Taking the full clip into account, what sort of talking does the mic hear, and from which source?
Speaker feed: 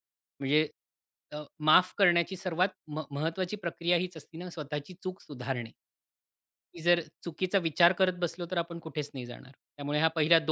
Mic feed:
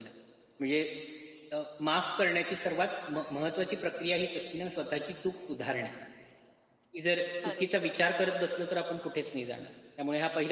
both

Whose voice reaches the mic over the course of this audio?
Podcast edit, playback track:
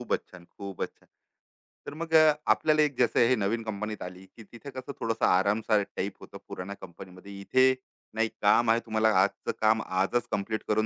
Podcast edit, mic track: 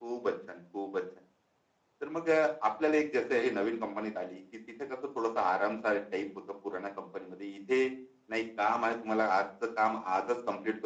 echo only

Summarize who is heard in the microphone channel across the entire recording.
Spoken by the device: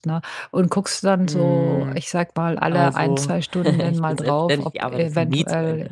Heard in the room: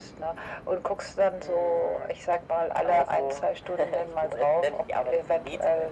echo only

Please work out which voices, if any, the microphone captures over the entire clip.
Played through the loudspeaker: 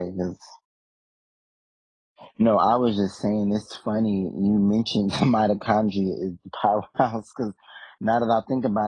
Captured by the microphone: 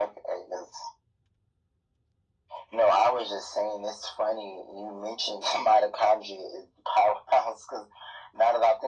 echo only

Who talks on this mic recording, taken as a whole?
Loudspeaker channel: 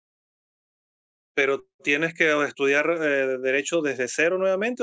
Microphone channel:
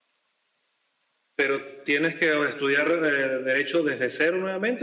echo only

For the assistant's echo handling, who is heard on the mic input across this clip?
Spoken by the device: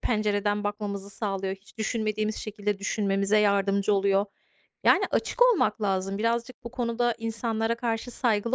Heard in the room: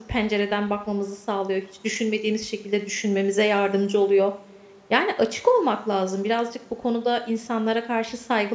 echo only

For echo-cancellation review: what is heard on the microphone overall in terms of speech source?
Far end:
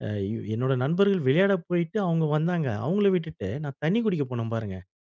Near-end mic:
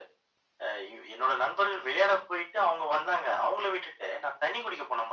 echo only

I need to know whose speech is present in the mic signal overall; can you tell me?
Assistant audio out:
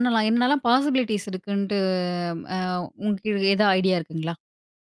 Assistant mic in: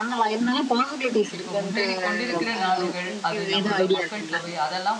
both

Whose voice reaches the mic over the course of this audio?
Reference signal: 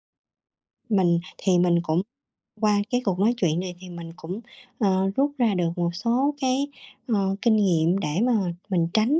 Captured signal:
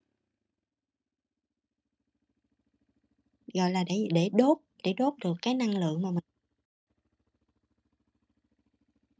user only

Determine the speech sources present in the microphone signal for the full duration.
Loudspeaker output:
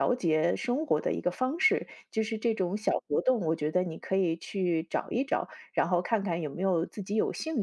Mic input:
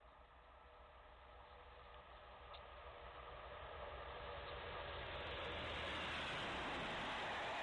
neither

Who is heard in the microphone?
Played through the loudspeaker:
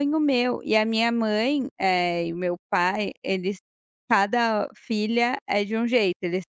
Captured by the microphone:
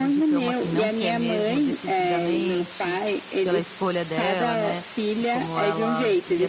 both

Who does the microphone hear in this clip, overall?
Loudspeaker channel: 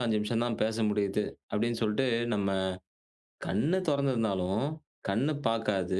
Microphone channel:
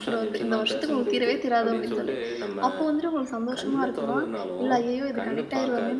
both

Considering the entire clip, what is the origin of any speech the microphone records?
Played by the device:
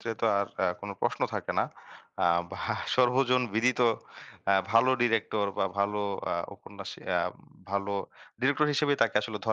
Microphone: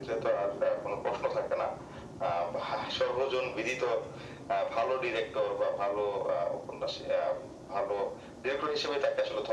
echo only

